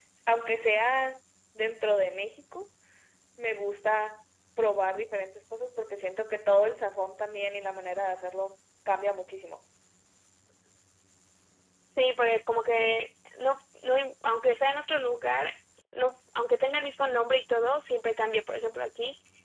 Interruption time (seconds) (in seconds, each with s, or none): none